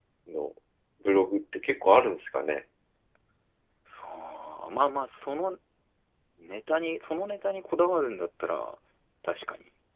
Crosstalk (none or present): none